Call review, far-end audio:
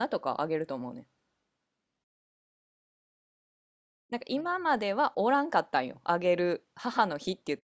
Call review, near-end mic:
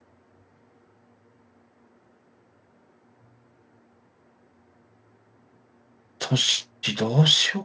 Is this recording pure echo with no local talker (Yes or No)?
No